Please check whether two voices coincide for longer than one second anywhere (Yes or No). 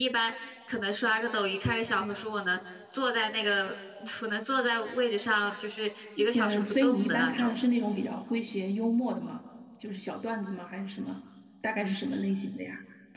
Yes